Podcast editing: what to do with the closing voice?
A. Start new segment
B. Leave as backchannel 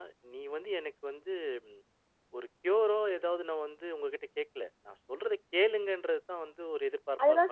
A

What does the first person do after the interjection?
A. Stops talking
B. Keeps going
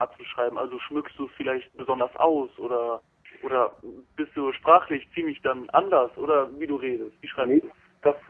A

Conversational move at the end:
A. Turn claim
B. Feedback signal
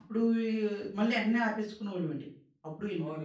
A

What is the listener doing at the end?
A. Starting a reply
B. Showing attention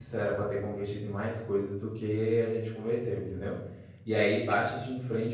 B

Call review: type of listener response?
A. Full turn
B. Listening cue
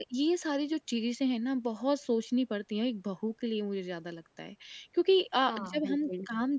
B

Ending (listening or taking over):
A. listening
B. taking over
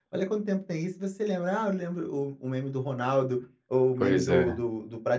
A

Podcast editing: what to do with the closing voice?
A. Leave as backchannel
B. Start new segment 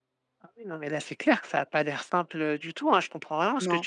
A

